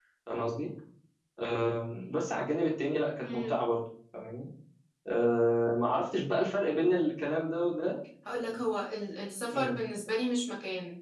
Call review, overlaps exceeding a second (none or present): none